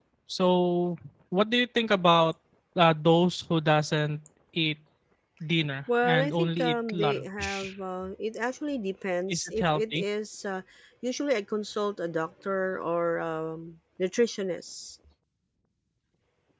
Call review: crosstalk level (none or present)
present